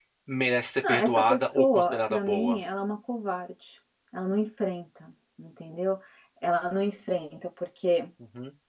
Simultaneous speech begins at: 1 s

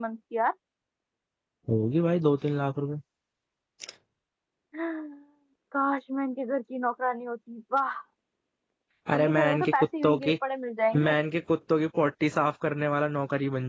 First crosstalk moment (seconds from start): 9 s

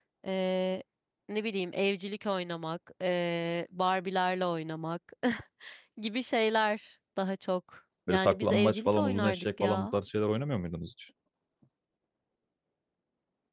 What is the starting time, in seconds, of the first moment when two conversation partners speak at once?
8 s

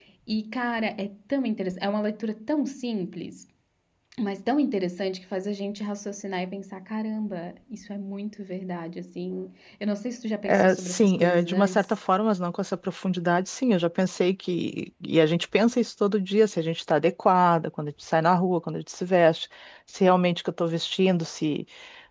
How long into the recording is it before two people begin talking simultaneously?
10 s

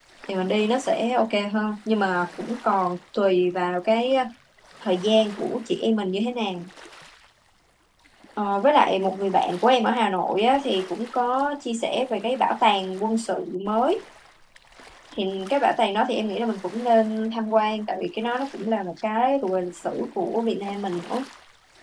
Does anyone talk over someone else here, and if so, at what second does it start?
none

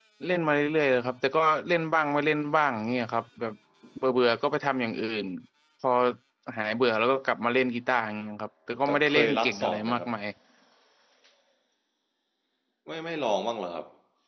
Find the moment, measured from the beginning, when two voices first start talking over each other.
9 s

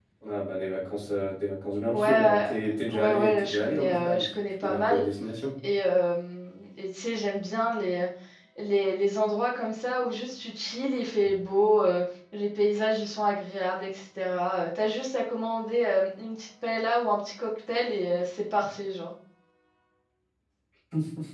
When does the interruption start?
2 s

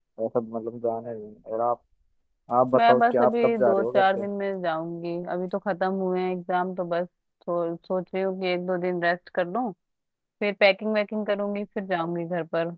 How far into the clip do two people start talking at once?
3 s

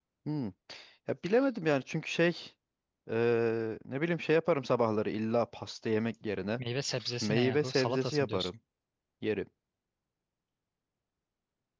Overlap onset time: 7 s

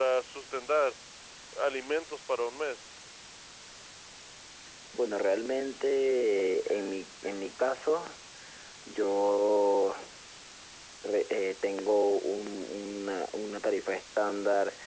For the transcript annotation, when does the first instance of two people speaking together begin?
none

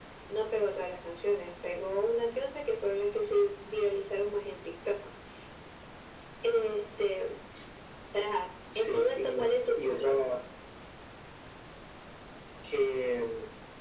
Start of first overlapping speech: 9 s

